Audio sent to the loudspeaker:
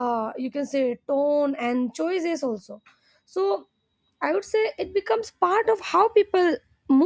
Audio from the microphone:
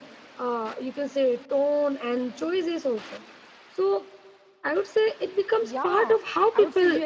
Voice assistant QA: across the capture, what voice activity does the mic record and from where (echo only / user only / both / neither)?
both